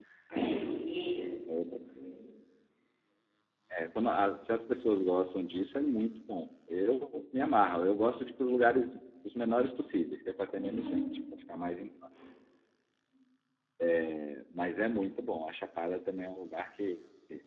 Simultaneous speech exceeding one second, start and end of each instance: none

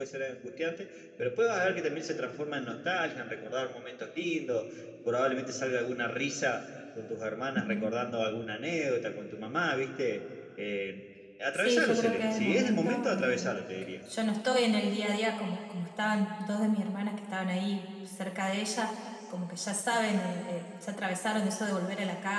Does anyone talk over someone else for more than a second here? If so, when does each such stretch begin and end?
11.5-13.4

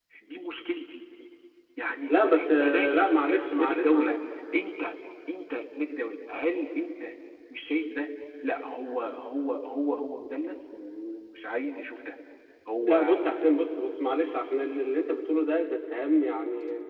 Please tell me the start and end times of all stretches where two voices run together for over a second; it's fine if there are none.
2.1-4.1

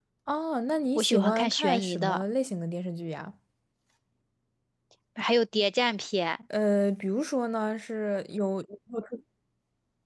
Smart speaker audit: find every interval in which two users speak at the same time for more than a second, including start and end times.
1.0-2.2

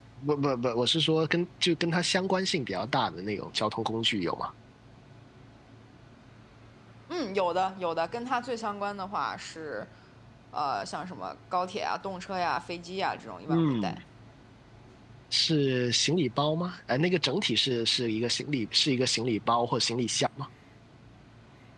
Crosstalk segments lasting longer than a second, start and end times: none

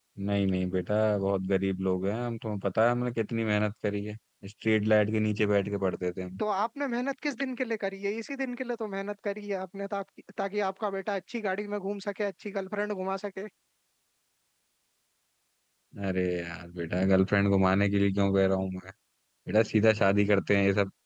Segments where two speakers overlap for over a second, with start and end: none

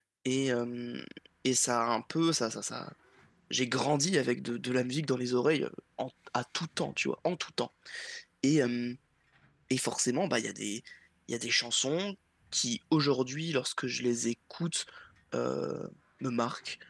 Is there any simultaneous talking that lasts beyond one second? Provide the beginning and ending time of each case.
none

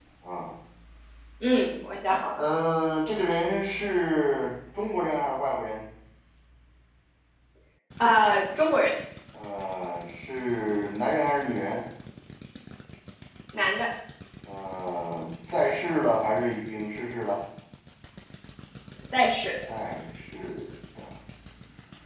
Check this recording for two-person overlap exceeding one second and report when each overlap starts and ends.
none

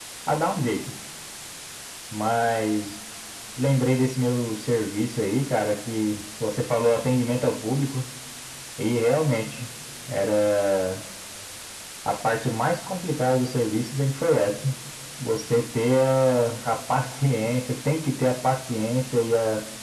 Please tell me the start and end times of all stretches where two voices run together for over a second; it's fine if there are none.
none

